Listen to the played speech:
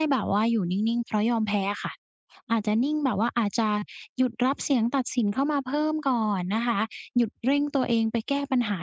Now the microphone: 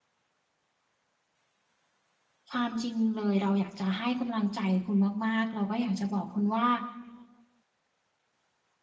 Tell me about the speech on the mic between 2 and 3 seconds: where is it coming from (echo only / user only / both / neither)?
user only